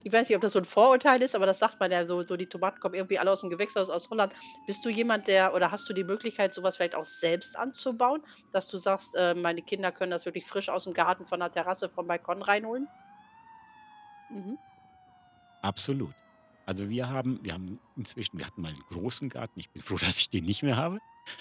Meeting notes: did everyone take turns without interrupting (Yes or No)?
Yes